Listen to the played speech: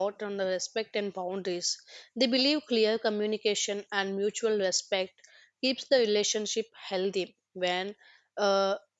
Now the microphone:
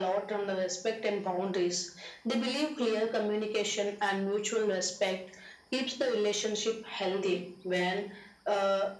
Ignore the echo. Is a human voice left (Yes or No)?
No